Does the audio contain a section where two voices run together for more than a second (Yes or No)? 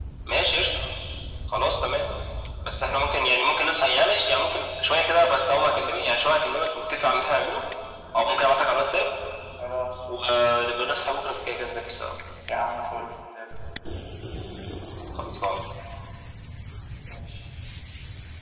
No